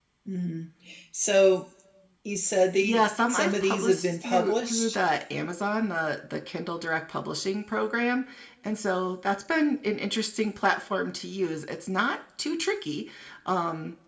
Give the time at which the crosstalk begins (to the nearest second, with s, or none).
3 s